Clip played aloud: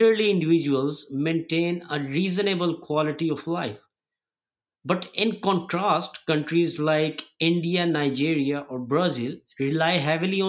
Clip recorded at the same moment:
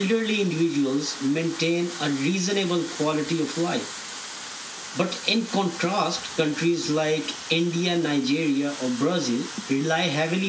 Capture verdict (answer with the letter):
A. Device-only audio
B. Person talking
A